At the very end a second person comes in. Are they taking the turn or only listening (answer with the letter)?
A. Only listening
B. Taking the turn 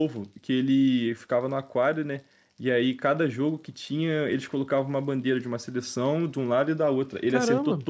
A